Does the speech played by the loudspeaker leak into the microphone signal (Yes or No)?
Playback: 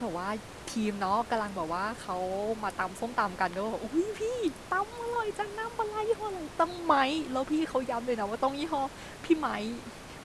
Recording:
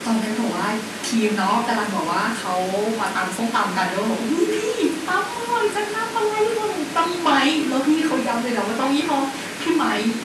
Yes